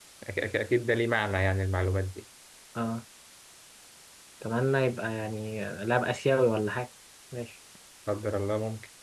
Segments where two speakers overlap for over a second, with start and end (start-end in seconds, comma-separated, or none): none